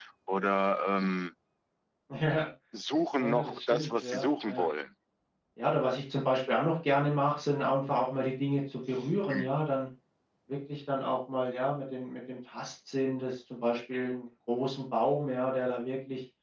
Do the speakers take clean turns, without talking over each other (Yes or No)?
No